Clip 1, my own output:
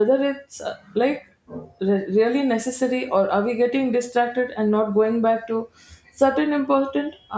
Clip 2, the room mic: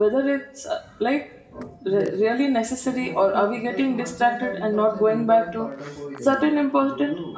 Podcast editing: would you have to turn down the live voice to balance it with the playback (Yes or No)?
No